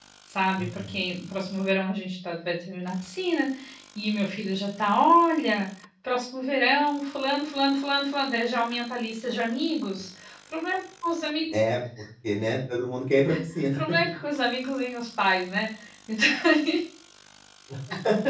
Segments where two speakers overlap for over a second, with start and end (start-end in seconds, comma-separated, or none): none